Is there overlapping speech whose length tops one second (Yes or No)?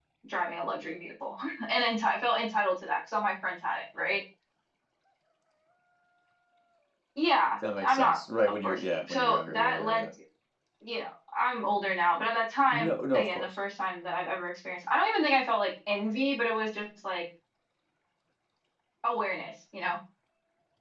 Yes